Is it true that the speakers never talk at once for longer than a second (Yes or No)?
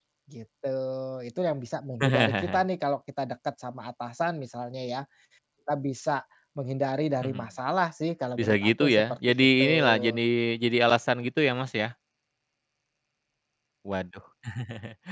No